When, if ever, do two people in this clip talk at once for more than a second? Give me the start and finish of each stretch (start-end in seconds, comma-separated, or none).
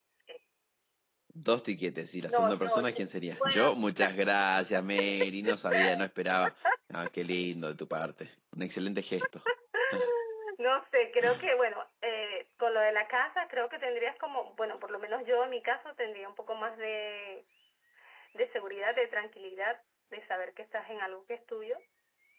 2.3-3.7